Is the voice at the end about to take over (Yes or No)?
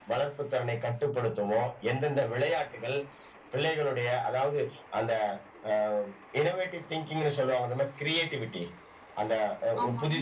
No